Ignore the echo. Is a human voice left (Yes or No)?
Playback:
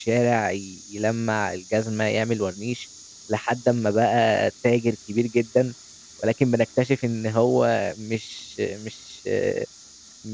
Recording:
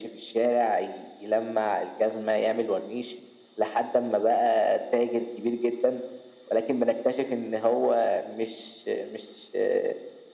No